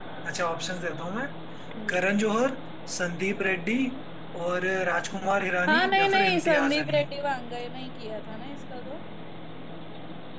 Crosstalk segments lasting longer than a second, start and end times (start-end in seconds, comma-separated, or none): 5.7-7.0